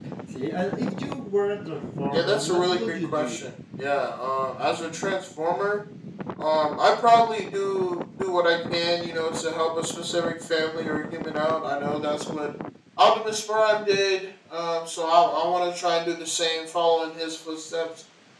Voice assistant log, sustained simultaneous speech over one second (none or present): present